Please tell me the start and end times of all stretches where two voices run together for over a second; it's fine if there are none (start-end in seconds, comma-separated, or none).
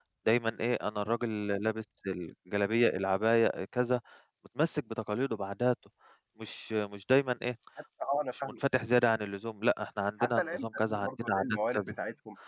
10.2-11.9